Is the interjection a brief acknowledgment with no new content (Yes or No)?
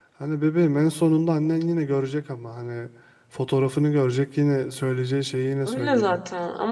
No